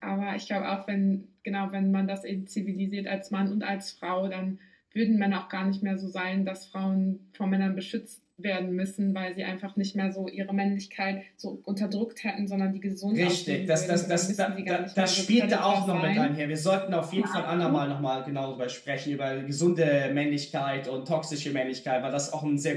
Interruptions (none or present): present